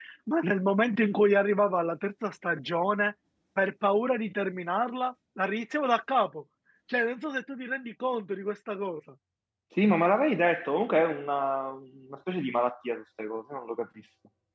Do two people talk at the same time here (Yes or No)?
No